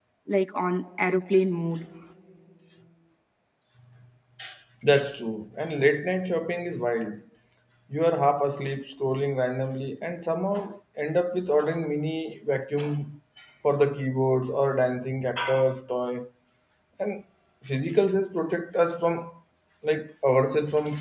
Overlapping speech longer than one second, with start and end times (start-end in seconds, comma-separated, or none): none